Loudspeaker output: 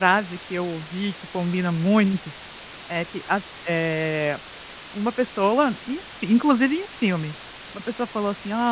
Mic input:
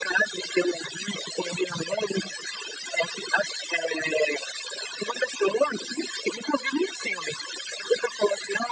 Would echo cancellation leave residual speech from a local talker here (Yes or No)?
No